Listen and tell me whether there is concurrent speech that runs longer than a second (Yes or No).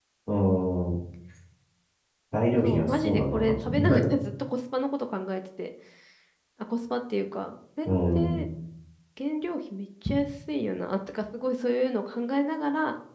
Yes